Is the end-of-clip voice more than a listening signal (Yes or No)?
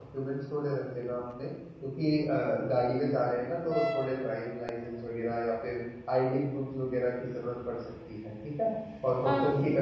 No